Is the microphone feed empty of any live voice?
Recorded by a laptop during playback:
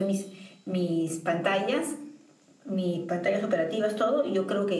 Yes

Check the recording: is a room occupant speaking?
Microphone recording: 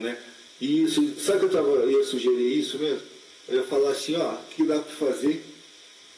No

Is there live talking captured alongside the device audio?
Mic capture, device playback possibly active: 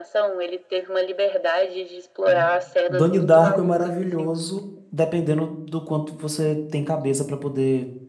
Yes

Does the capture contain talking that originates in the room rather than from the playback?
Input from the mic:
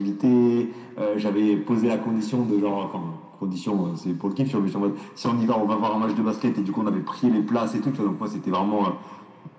No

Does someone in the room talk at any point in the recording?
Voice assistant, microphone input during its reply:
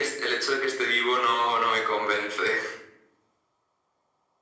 No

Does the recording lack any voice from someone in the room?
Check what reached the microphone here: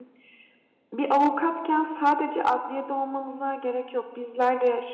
No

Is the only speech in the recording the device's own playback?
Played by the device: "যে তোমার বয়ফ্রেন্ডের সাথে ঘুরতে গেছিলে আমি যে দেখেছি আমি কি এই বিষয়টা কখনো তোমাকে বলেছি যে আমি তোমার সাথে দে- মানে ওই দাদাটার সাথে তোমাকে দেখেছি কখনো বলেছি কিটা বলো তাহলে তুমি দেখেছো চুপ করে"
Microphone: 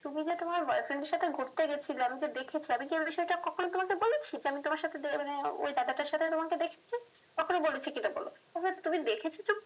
Yes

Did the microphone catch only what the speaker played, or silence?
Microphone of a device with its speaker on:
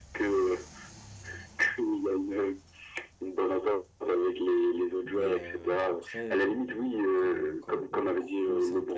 No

